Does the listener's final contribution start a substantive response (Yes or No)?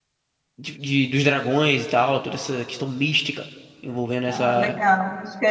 Yes